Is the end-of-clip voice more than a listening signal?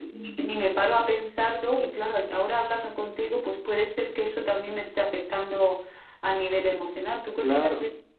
Yes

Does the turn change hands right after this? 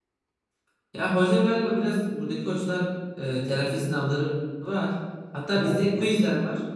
No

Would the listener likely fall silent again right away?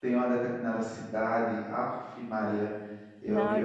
No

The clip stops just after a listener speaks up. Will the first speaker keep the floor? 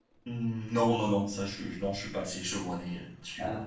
No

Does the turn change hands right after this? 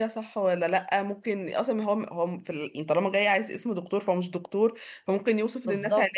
No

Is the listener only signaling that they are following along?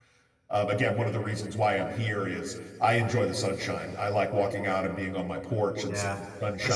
No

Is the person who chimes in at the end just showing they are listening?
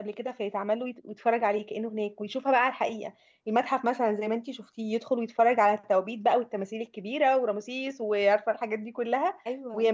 Yes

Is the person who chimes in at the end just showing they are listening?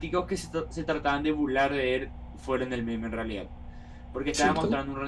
Yes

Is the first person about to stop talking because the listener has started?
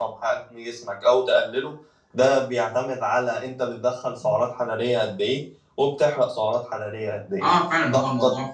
Yes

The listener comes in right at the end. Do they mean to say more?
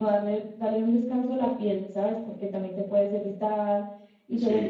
No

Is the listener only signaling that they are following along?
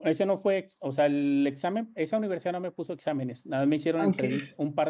Yes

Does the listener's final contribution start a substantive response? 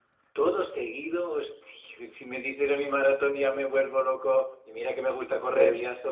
No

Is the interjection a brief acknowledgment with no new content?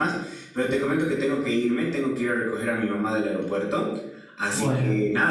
Yes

